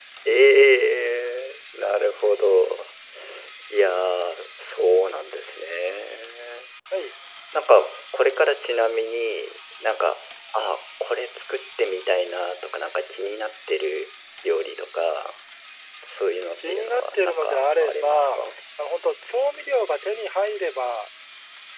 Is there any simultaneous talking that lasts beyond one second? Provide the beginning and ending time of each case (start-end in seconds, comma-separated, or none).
16.5-18.4